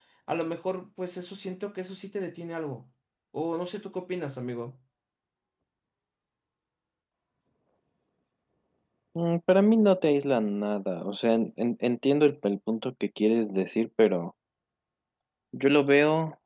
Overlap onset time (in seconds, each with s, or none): none